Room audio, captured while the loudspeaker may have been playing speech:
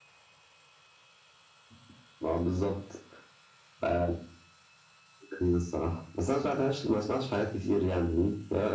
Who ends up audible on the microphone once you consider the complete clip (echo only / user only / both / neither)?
echo only